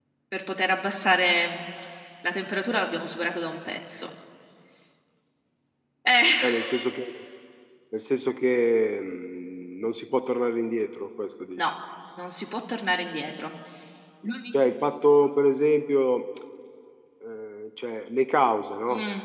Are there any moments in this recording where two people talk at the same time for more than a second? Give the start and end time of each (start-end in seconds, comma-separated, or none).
none